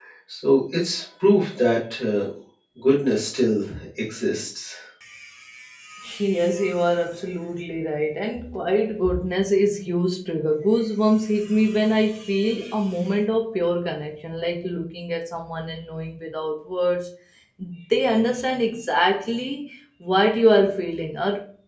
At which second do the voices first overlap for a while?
none

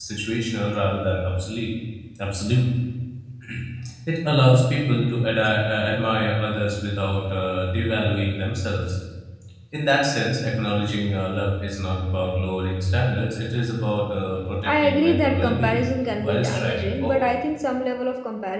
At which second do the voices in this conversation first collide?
14.7 s

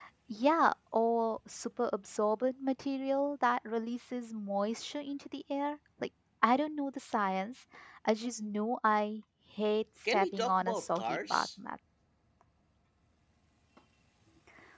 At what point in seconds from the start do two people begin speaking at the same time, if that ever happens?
10.0 s

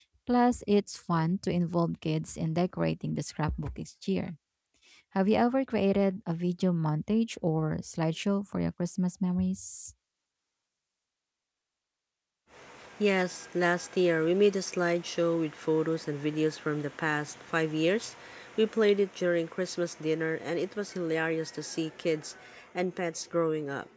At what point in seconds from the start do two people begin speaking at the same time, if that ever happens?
none

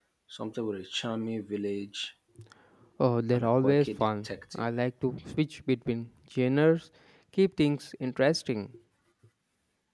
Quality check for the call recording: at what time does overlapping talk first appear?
3.3 s

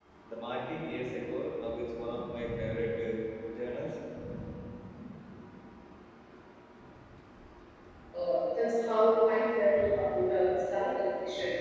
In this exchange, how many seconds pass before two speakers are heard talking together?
none

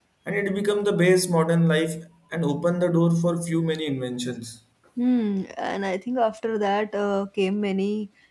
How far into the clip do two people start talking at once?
none

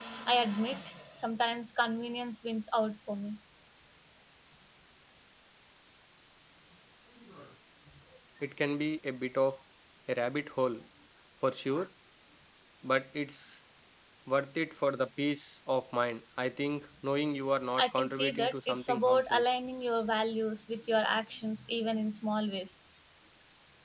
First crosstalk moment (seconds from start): 17.8 s

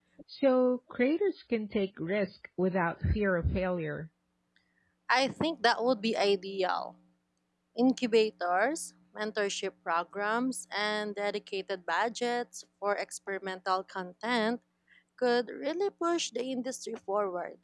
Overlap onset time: none

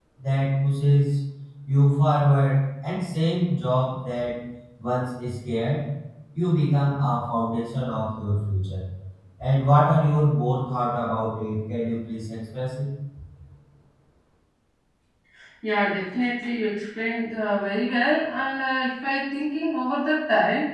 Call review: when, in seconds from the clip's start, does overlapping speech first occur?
none

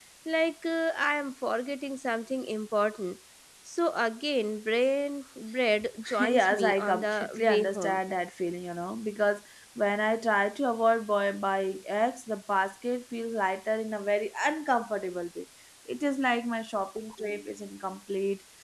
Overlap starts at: 6.2 s

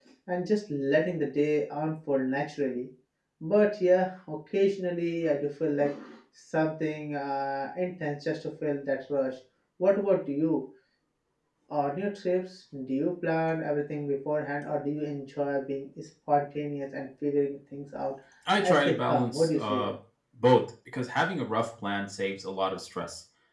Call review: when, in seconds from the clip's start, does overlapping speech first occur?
18.6 s

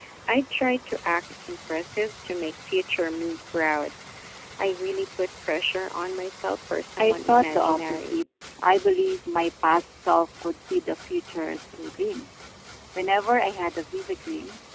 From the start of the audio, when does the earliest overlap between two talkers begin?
7.0 s

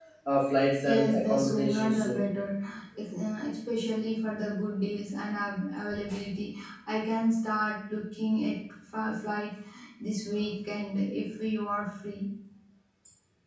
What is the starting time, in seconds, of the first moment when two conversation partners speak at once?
0.8 s

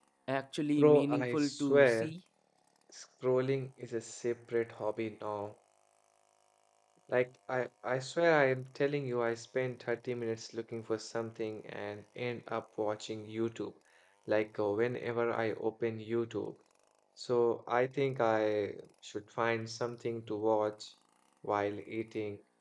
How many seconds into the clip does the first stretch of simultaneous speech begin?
0.8 s

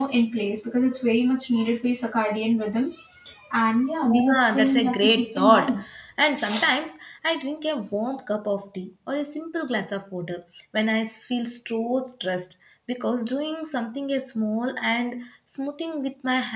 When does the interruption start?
4.0 s

